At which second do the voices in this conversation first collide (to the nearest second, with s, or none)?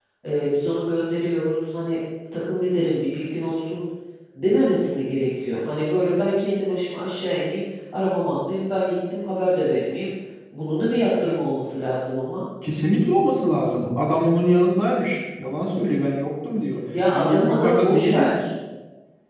17 s